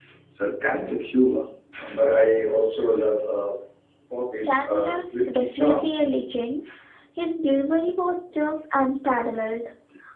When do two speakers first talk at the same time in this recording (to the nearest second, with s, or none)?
4 s